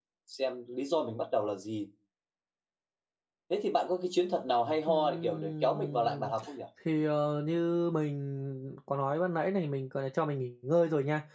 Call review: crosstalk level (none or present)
present